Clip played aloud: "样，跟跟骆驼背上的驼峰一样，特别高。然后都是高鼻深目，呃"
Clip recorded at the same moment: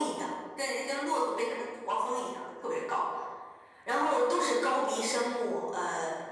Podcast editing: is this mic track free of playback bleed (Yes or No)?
No